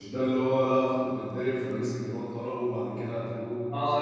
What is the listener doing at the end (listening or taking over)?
taking over